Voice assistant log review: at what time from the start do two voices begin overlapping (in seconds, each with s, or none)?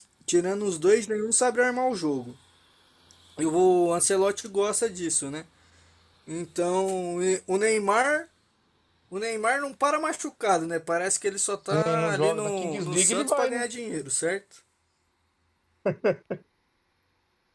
11.7 s